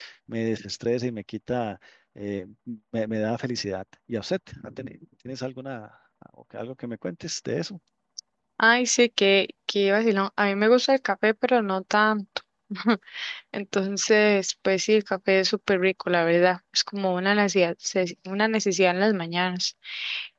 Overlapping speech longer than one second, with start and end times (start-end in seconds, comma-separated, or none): none